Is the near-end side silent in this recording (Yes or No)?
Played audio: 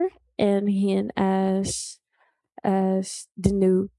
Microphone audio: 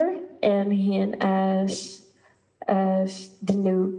Yes